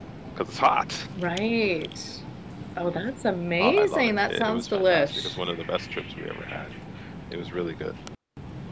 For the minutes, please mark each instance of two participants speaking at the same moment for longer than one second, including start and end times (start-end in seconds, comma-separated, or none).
3.6-5.4